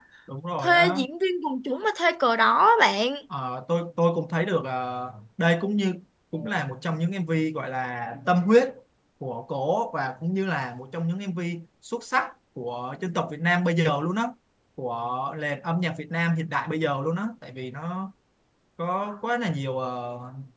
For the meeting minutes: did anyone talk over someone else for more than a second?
No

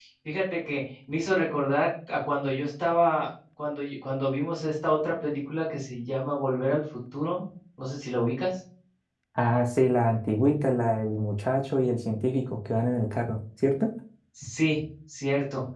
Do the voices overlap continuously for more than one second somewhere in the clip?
No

